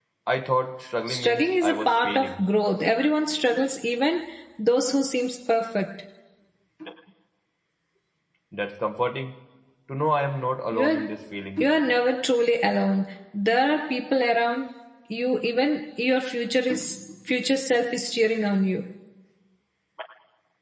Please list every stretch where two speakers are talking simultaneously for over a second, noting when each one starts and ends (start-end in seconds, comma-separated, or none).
1.1-2.4